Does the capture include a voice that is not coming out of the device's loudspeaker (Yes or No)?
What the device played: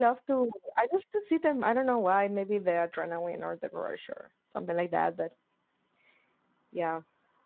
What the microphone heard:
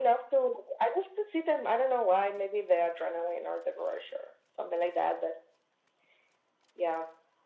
No